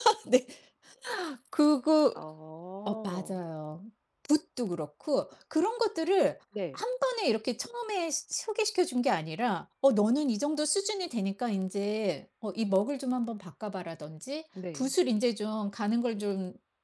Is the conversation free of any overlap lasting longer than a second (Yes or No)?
Yes